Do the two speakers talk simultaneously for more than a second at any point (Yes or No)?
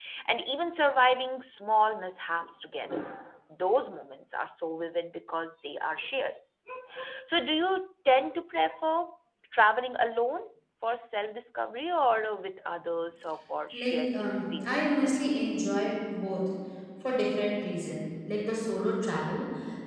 Yes